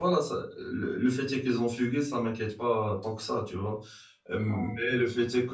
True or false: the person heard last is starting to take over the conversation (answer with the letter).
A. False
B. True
A